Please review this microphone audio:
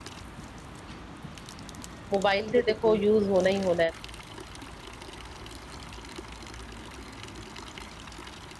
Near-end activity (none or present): present